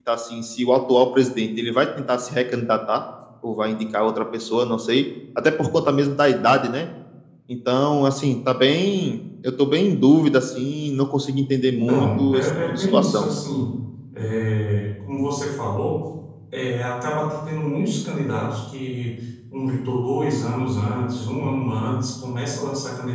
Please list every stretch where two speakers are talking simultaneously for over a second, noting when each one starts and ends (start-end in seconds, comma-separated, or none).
11.7-13.3